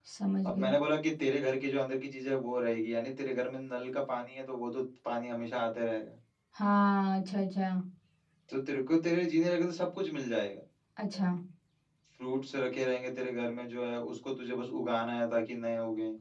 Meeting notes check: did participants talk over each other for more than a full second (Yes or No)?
No